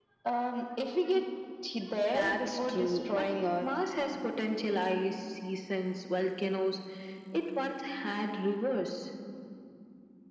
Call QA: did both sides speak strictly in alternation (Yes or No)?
No